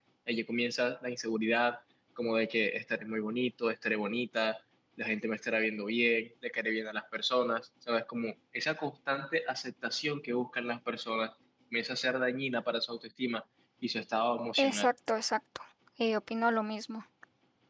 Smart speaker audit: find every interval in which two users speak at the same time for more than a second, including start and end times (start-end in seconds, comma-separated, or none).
none